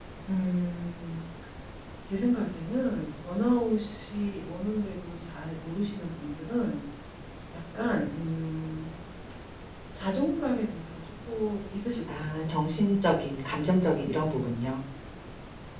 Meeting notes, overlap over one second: none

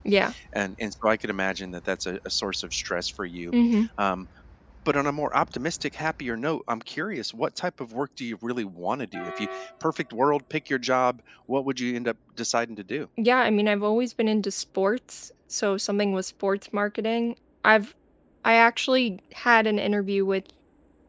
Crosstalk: none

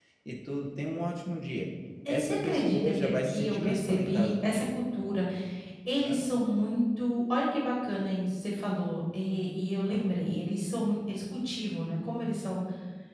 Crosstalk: present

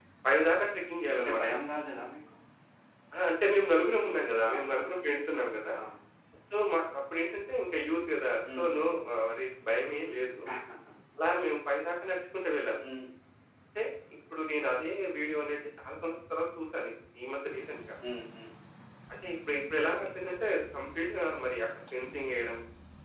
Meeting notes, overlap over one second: none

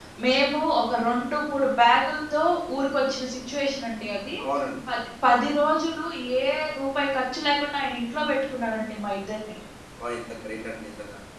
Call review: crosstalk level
none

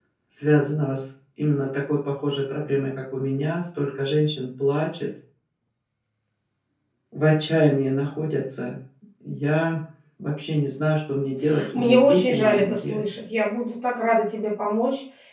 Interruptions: present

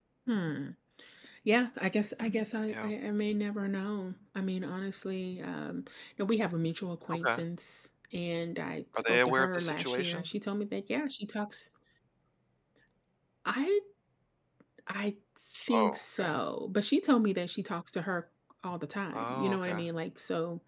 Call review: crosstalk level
present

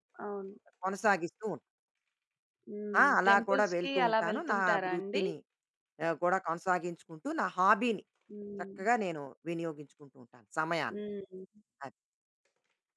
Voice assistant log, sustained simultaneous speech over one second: present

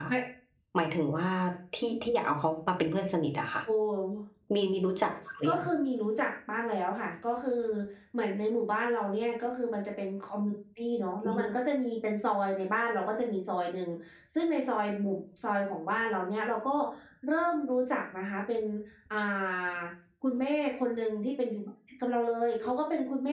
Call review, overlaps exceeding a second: none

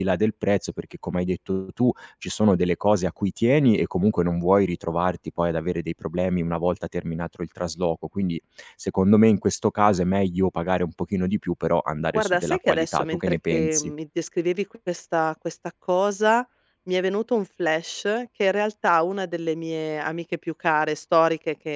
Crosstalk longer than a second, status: present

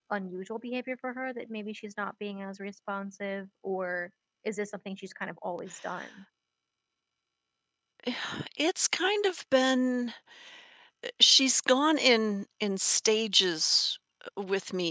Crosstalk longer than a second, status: none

